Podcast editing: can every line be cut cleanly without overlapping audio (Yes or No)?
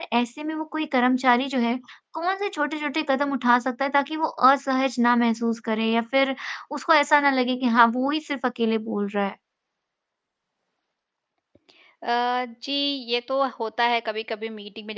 Yes